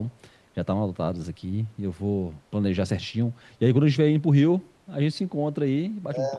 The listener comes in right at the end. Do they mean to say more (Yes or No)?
Yes